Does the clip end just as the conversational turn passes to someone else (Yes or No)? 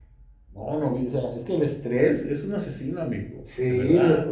Yes